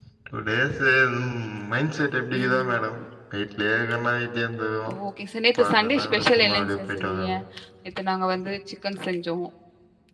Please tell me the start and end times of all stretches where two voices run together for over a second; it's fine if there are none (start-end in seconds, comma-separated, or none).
5.6-7.3